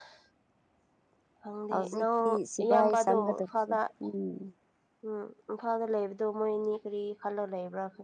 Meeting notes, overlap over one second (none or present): present